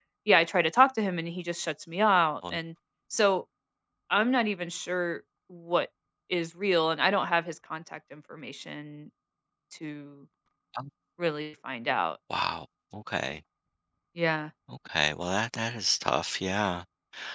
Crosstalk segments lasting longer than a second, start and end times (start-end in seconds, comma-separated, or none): none